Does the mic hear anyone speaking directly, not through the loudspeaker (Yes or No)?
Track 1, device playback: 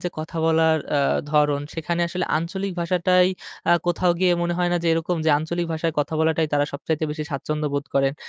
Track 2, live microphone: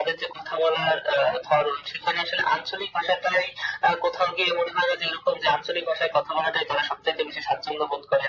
No